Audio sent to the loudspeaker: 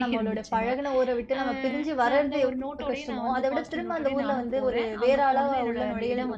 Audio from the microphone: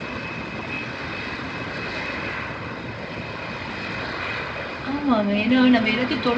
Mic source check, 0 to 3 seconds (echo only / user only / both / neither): neither